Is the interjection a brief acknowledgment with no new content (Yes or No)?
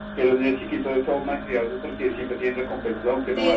No